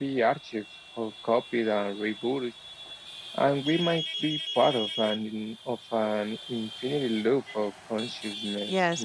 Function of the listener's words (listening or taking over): taking over